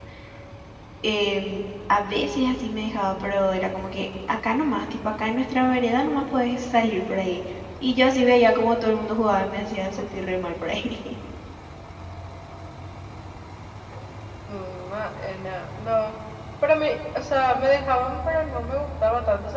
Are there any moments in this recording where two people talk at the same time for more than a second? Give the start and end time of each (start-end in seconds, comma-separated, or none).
none